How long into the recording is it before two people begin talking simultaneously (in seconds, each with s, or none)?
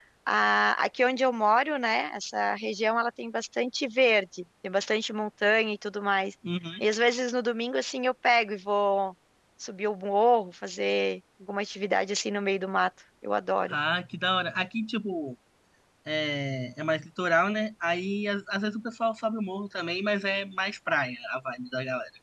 none